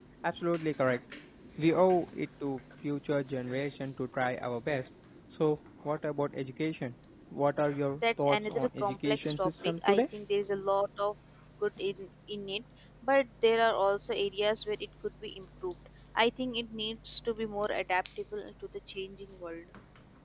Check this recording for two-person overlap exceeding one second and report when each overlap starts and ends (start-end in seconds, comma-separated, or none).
8.2-10.0